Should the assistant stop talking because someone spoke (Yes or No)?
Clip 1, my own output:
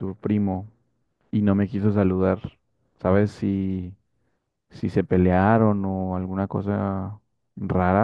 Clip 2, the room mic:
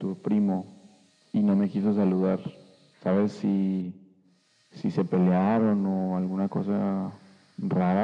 No